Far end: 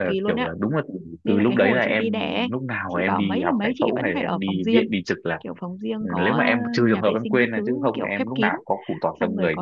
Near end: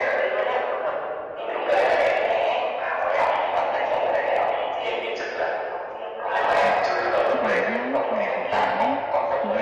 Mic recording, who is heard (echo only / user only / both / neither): both